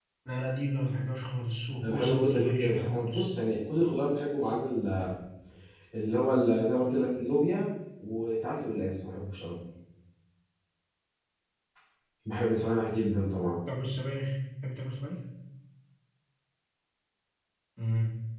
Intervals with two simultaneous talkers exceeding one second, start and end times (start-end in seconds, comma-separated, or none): 1.8-3.2